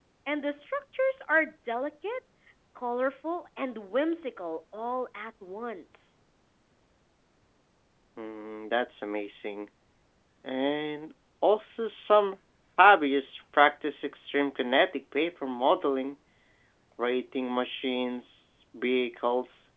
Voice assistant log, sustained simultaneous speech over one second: none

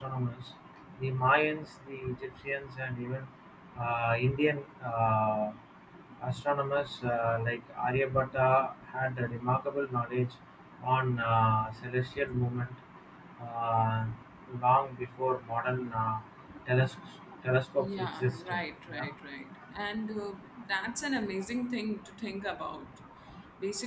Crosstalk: present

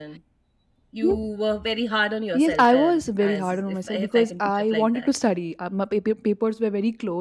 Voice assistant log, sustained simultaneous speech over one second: present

